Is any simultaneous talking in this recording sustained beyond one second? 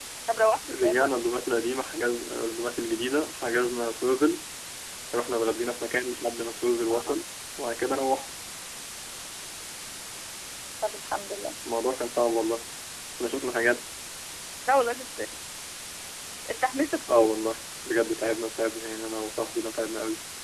No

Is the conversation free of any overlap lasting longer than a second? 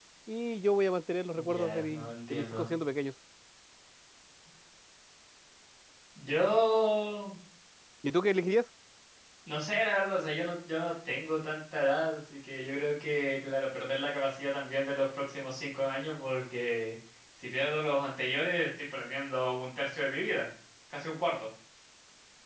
No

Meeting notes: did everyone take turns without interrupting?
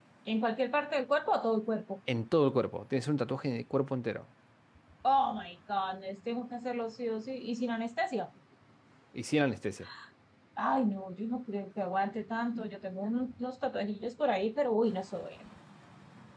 Yes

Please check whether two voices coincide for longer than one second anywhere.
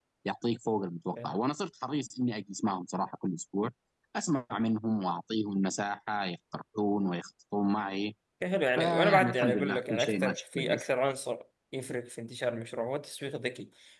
Yes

